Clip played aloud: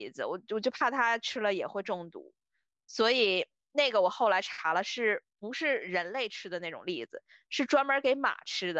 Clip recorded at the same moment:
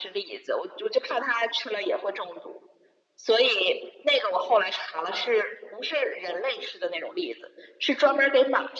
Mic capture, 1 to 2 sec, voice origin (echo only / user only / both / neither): echo only